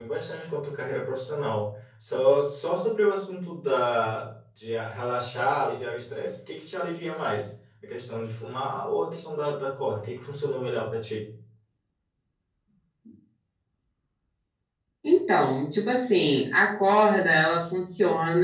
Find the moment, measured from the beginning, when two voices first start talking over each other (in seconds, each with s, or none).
none